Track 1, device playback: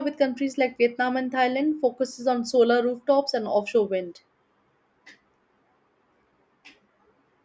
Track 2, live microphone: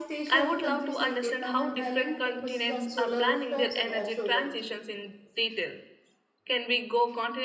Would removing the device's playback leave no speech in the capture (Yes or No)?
No